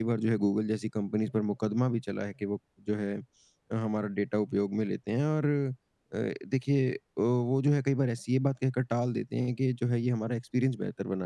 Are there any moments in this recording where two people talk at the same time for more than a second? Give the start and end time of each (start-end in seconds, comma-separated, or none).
none